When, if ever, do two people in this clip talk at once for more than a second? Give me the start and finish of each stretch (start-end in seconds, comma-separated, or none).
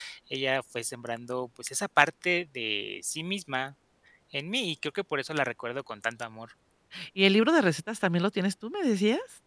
none